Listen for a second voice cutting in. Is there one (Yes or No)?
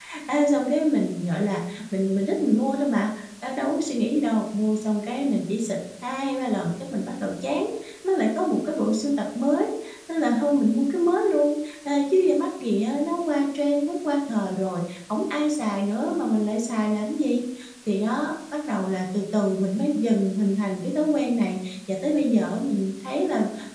No